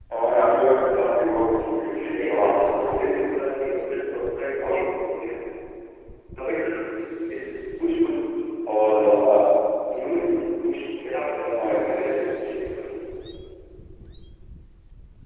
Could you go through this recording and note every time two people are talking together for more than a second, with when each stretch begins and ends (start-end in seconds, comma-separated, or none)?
2.1-3.4